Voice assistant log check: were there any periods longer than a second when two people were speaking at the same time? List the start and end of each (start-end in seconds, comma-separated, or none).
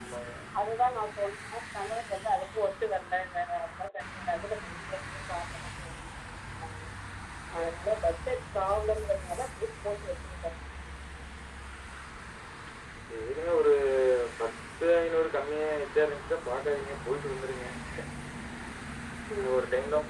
none